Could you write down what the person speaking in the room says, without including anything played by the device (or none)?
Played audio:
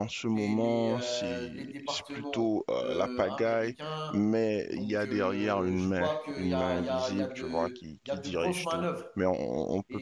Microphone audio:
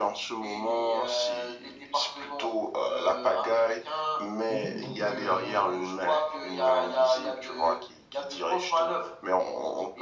mhm, totalement.